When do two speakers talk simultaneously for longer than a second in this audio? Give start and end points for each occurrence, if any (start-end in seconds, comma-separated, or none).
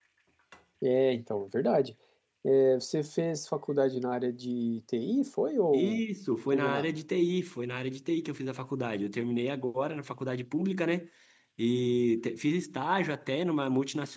none